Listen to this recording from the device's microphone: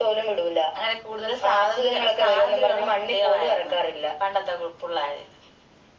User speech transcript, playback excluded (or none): none